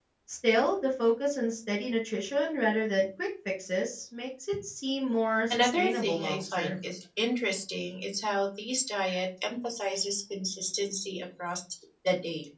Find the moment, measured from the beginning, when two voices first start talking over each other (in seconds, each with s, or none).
5.5 s